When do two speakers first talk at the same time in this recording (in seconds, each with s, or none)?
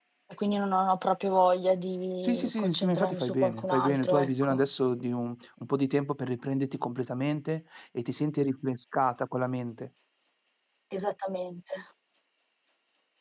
2.2 s